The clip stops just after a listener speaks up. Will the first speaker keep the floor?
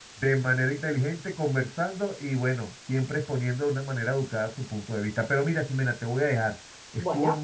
Yes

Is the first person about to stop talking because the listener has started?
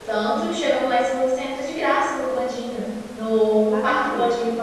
No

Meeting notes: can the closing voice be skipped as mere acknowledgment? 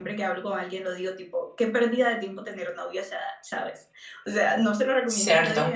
Yes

